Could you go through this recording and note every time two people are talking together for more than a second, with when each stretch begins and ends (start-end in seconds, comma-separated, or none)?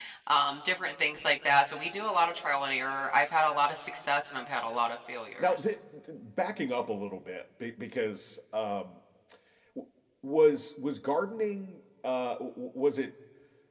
none